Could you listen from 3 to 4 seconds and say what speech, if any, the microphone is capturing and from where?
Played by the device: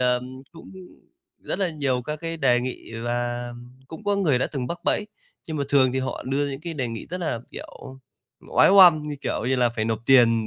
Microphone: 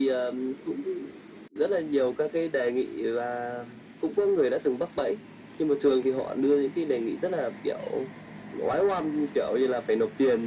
echo only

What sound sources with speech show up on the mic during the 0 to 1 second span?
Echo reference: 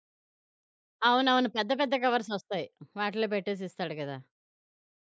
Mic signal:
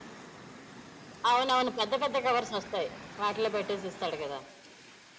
neither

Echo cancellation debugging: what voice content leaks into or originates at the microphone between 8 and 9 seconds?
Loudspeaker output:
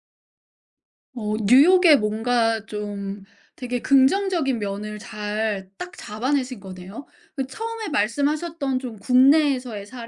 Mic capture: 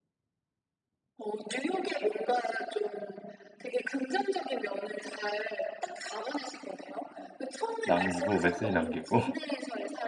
both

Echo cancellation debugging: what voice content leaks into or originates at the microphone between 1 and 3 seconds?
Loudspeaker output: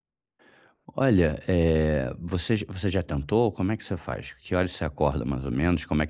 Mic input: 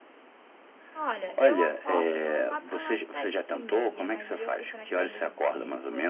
both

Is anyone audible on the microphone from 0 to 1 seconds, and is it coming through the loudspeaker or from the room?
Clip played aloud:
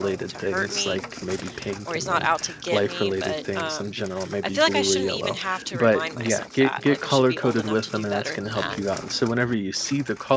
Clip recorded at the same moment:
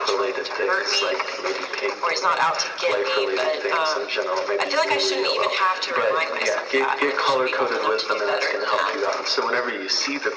echo only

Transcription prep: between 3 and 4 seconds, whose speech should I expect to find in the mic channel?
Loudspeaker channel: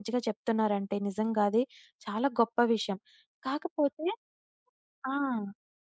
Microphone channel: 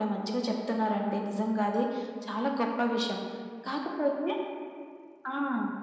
echo only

